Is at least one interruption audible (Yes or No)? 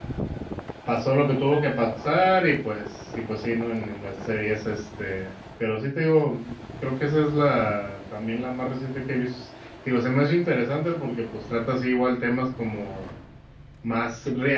No